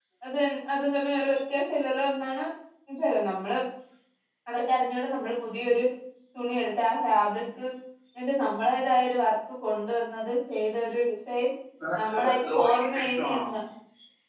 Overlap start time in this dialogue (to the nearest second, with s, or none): 12 s